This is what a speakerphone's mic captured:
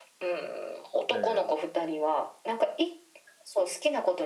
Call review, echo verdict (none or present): present